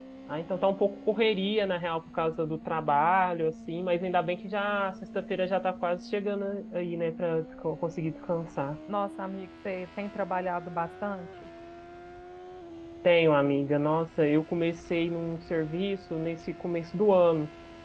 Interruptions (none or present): none